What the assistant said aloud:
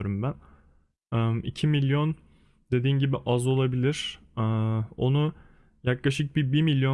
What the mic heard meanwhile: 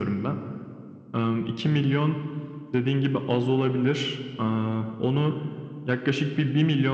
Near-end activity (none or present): none